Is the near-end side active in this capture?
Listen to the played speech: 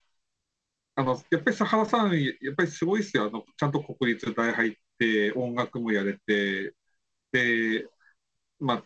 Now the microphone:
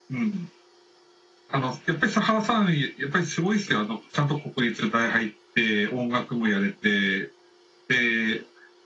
No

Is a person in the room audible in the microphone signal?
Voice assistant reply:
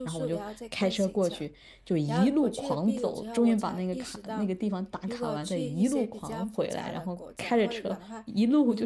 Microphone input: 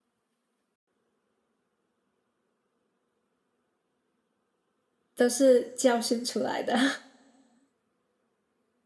Yes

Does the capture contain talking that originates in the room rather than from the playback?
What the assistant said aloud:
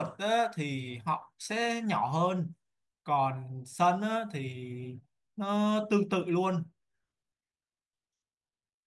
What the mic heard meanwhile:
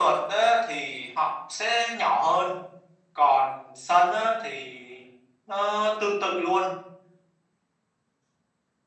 No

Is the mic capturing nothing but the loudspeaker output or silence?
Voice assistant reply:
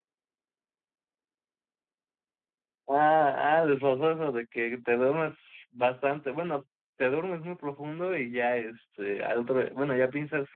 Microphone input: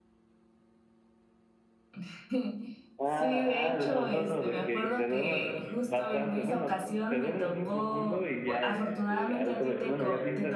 No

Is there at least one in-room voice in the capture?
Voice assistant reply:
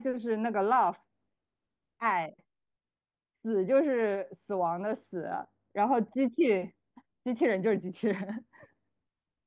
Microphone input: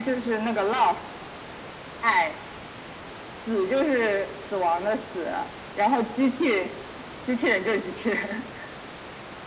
No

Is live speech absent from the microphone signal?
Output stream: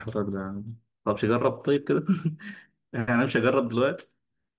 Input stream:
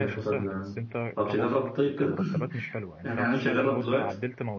No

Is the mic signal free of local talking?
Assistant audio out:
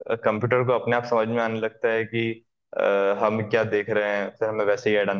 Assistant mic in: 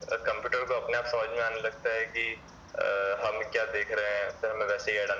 Yes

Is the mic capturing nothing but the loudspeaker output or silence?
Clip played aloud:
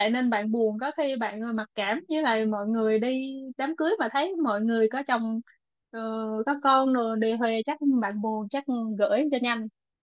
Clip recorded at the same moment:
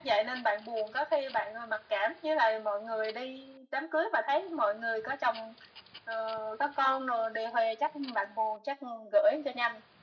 Yes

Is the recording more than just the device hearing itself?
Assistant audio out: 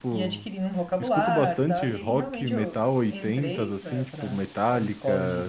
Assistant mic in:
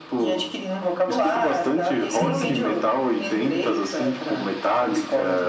Yes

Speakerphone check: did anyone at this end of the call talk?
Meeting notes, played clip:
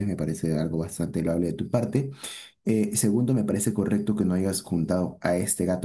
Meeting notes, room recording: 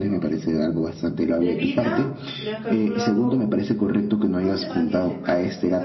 Yes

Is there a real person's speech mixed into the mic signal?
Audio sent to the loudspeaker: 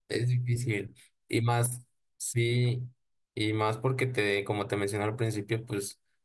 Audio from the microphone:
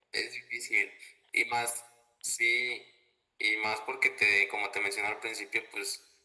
No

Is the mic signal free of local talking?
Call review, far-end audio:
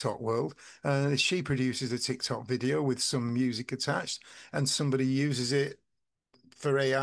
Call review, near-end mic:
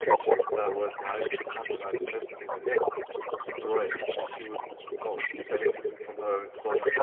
No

